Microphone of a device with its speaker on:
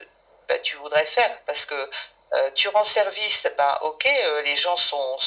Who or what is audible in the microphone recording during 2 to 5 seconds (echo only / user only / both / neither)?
echo only